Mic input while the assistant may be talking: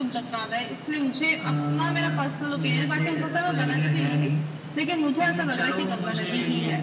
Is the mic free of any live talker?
Yes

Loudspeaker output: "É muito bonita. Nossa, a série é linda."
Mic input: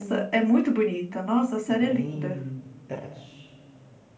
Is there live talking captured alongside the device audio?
Yes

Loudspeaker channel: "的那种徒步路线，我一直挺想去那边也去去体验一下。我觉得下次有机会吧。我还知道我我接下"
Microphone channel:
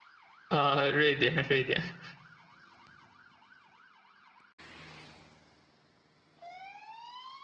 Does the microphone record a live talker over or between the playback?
Yes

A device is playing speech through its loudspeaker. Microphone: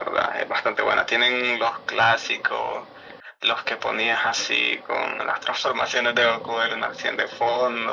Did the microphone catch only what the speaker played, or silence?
Yes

